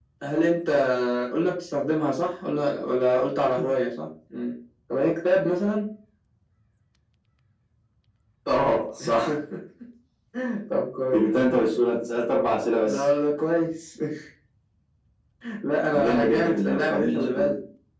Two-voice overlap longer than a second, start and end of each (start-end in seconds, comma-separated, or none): 15.9-17.5